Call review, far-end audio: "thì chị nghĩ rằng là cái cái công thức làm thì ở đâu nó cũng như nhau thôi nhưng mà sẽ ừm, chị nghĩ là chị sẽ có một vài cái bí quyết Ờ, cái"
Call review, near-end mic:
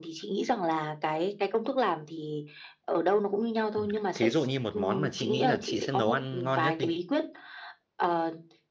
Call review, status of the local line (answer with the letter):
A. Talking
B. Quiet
A